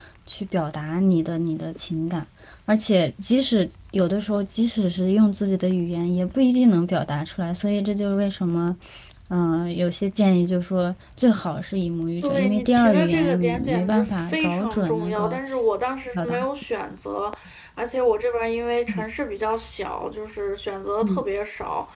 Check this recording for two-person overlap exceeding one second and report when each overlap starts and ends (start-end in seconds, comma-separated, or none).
12.2-15.4